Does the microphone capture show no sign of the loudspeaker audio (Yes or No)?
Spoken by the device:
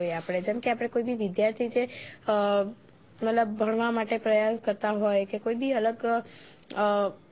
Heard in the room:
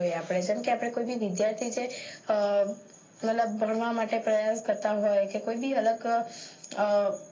No